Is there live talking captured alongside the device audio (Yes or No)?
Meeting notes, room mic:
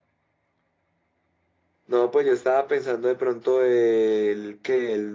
No